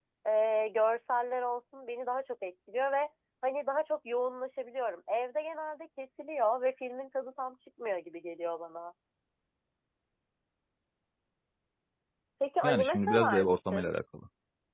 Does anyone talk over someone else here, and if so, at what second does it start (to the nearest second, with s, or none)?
13 s